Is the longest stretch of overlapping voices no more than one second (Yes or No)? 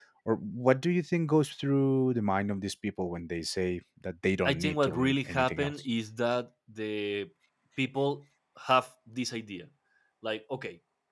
No